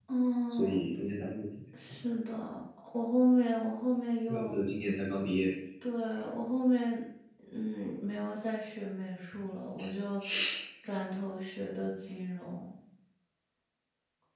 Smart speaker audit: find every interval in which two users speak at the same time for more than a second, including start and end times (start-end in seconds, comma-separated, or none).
none